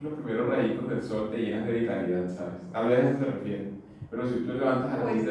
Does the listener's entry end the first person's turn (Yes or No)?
No